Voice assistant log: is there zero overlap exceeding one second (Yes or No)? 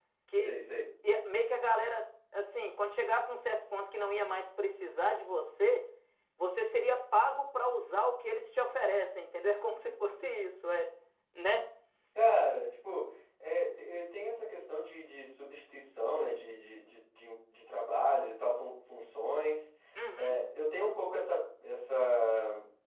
Yes